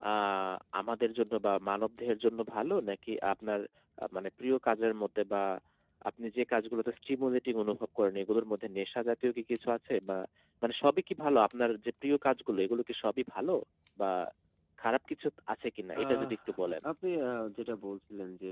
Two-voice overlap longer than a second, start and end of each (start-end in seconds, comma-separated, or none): none